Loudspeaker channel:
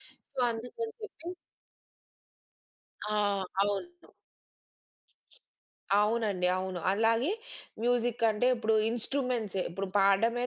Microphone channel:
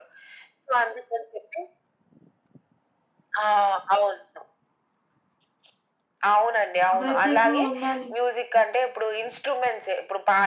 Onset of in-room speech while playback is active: 7.0 s

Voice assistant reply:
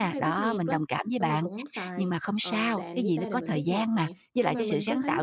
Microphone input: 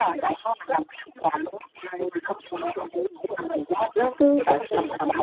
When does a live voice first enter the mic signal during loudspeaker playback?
3.9 s

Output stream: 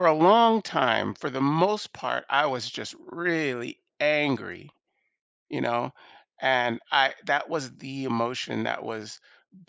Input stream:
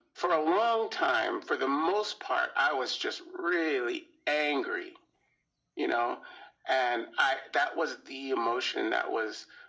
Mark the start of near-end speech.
none

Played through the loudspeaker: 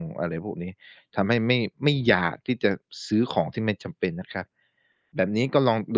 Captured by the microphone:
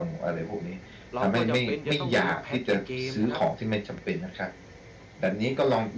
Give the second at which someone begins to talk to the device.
1.1 s

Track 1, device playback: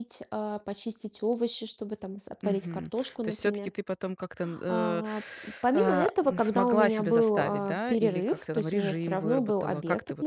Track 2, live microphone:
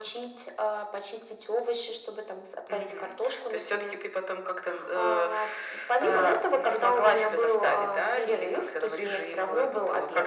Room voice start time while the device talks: none

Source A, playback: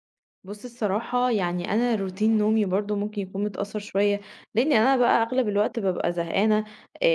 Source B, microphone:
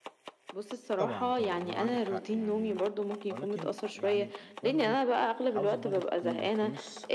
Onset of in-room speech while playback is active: 1.0 s

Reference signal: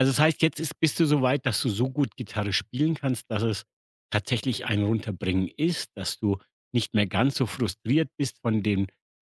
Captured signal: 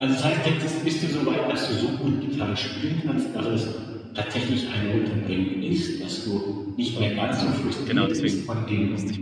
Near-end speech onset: 6.9 s

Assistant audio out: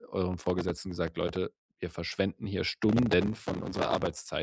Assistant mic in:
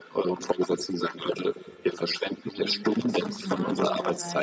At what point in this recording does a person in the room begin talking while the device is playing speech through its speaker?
2.5 s

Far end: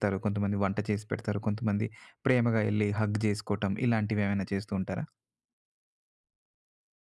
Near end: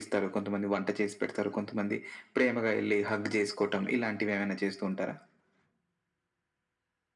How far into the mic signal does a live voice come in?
none

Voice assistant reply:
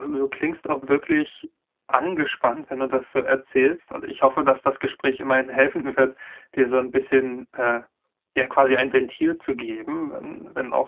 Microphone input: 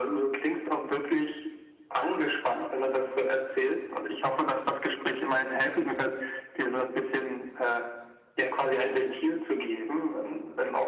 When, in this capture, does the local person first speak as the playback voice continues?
none

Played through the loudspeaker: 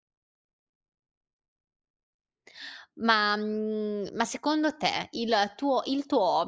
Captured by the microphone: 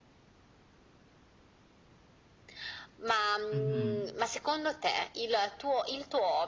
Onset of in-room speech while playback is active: 3.5 s

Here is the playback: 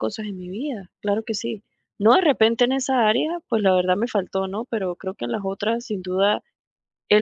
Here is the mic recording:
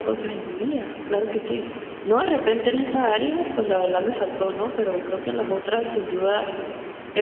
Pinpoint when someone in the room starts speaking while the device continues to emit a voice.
none

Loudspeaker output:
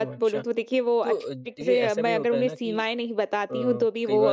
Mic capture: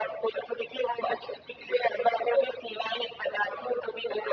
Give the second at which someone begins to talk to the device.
none

